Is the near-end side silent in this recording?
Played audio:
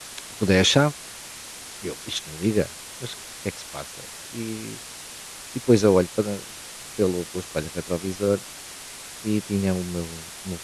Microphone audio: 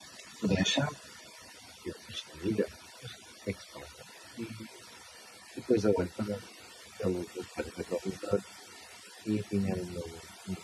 Yes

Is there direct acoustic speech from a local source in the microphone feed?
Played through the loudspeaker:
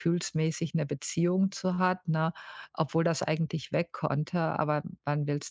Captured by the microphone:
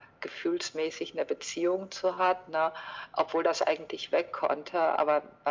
No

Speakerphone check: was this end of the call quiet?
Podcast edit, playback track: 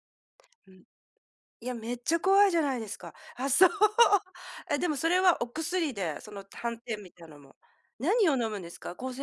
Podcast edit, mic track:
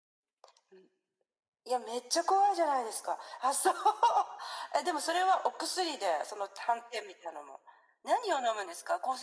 Yes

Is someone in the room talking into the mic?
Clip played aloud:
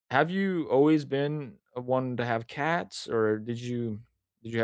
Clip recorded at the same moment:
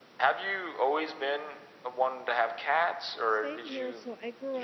Yes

